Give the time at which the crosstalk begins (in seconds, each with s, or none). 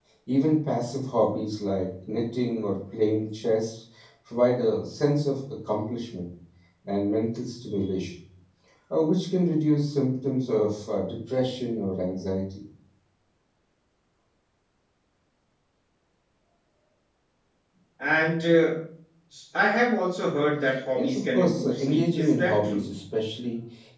21.0 s